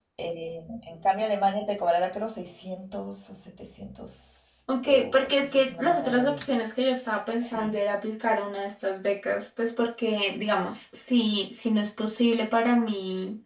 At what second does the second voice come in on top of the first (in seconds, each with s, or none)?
4.8 s